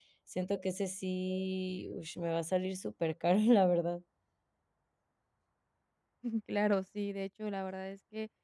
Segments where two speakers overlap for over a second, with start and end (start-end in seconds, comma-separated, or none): none